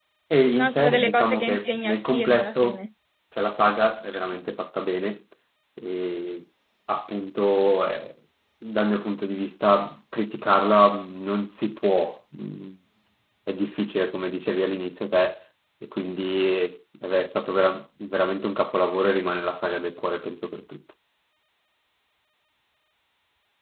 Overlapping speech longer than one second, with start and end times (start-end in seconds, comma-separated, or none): 0.5-2.8